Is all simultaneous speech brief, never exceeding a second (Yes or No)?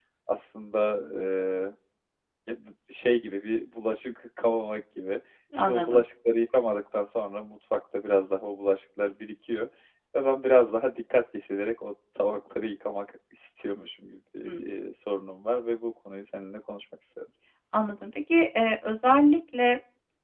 Yes